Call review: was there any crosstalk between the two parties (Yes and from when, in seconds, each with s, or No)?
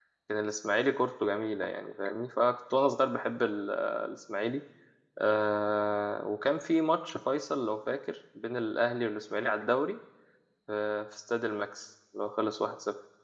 No